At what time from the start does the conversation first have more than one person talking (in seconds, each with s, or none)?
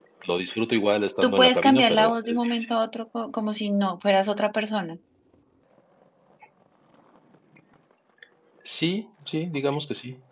1.2 s